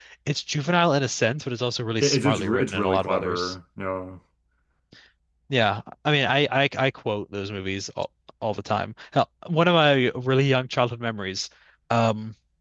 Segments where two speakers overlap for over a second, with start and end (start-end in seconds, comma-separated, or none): 2.0-3.5